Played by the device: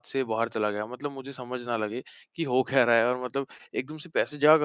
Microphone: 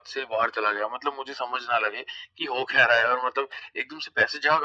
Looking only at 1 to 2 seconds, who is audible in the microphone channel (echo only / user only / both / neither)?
echo only